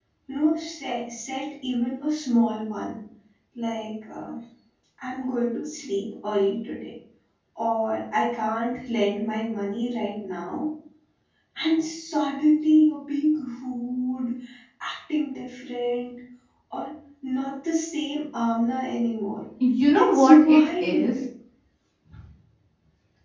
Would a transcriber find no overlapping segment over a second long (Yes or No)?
No